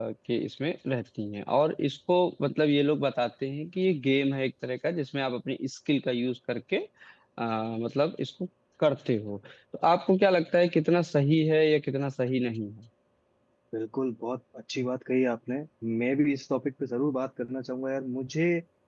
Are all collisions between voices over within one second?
Yes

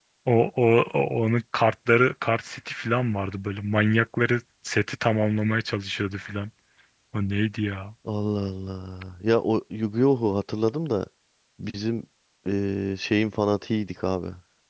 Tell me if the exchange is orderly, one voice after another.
Yes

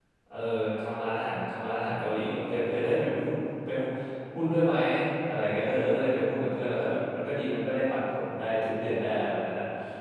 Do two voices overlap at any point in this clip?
No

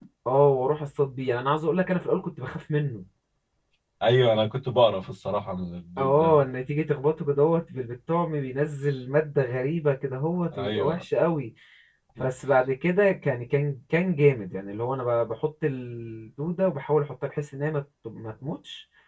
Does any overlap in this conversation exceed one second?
No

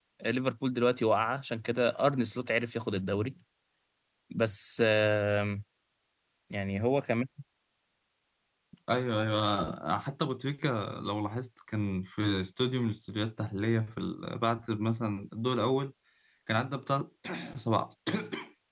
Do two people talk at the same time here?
No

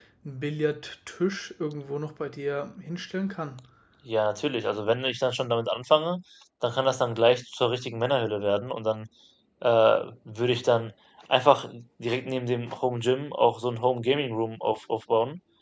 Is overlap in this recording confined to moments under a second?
Yes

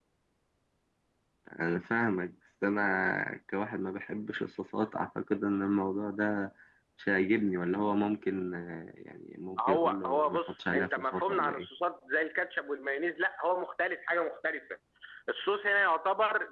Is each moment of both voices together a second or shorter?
No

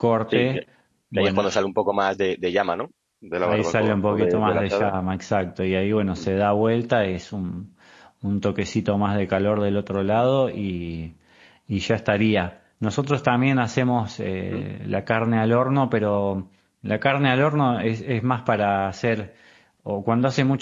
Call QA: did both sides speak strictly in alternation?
No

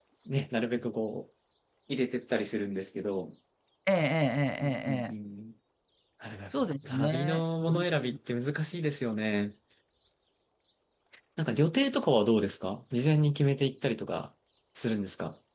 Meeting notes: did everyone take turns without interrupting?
No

